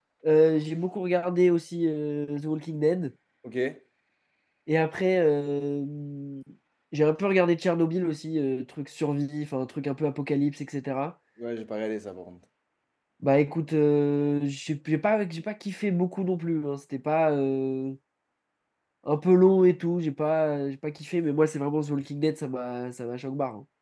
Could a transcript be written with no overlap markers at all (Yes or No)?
Yes